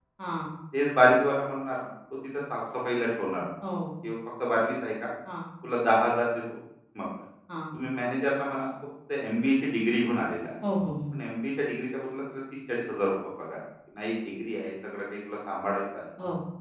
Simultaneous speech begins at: none

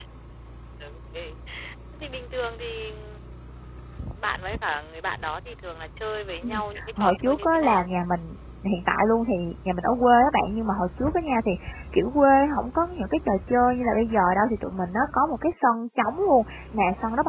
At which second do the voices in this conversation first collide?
6 s

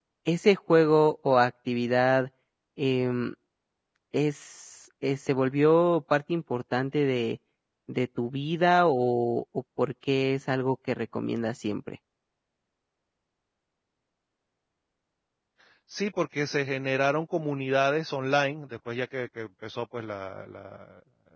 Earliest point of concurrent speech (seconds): none

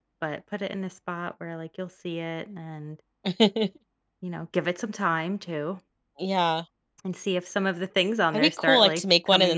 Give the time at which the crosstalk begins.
8 s

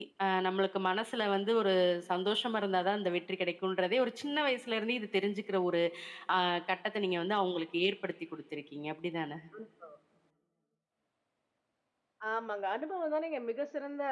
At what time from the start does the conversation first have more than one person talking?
none

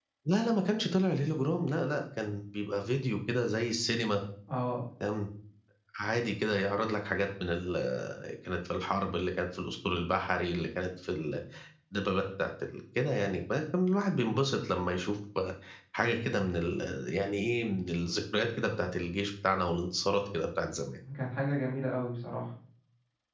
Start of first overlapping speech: none

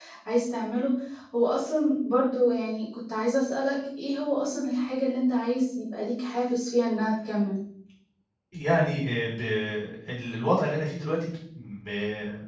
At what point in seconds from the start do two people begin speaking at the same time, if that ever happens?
none

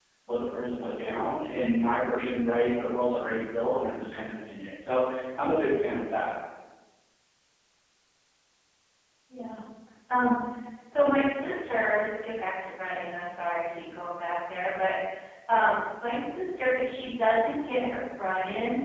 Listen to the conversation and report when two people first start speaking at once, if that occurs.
none

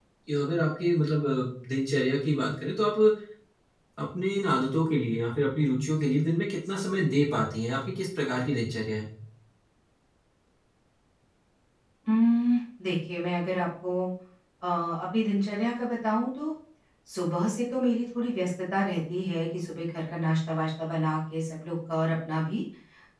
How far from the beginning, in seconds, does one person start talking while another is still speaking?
none

